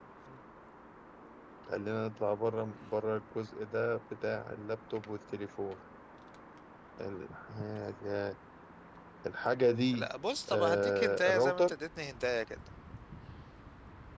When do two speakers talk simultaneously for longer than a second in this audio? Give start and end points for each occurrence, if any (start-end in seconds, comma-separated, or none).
10.5-11.7